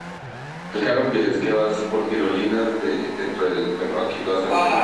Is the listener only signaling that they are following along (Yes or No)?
No